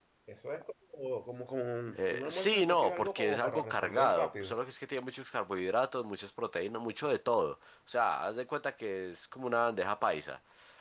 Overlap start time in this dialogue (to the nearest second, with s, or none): 2 s